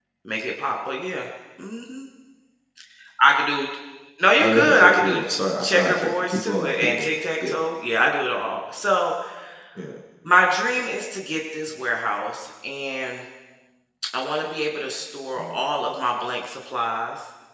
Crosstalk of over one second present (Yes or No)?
Yes